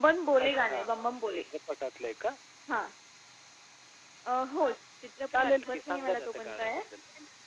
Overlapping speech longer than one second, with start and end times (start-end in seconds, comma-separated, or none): 5.3-6.8